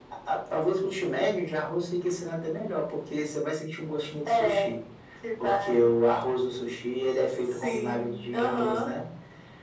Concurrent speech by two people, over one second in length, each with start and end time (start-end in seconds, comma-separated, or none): 7.3-8.9